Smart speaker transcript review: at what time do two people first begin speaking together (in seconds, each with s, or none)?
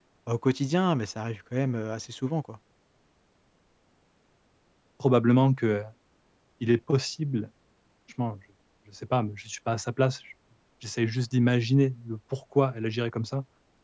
none